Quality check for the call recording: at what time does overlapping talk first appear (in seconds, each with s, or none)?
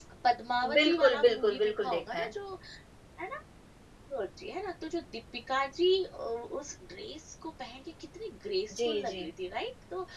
0.7 s